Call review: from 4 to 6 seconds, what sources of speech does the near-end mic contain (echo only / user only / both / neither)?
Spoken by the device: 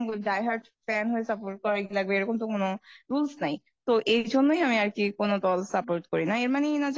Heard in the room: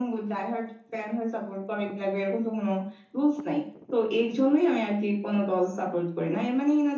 echo only